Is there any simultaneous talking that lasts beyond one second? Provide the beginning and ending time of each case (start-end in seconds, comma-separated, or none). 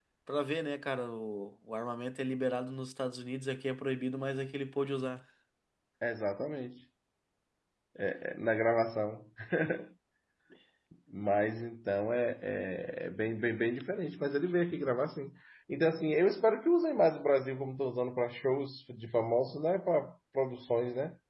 none